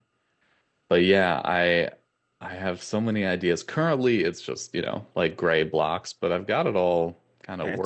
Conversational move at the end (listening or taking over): taking over